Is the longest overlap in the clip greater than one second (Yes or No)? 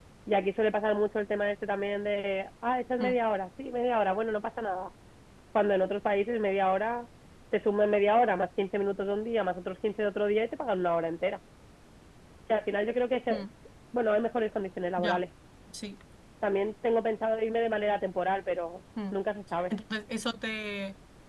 No